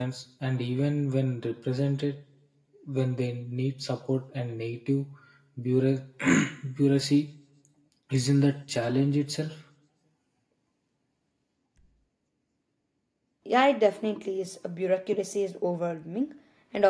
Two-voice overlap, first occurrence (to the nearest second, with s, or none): none